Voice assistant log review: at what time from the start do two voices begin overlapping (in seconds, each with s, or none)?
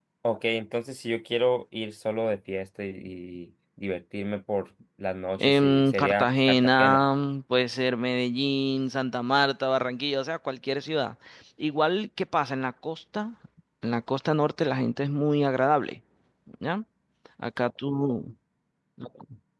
5.4 s